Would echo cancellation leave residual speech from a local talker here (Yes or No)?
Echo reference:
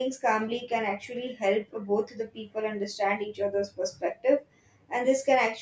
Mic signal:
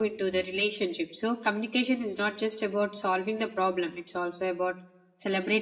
Yes